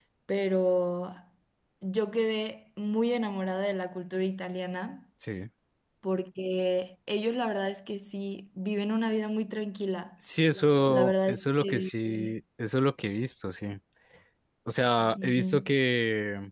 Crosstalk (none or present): present